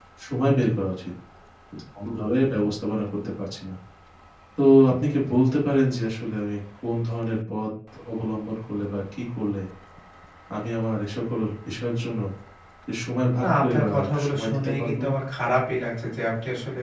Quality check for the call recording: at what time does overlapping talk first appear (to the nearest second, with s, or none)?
13 s